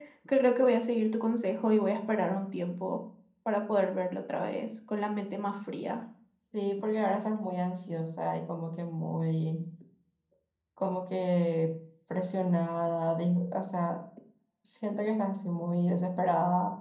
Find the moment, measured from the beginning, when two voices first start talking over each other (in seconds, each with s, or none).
none